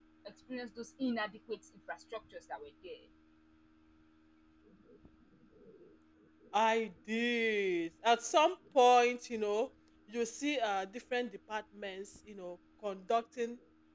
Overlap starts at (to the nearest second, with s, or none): none